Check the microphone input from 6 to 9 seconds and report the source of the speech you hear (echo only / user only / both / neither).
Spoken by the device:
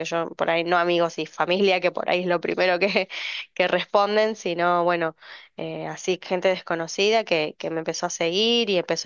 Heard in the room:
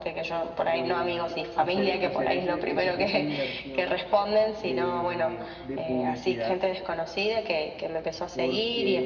both